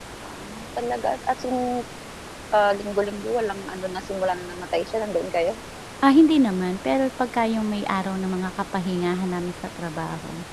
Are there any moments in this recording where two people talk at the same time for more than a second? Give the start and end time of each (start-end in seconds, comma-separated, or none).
none